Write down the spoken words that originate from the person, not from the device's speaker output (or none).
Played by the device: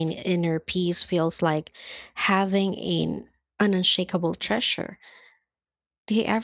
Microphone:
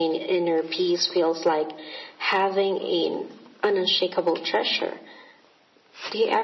none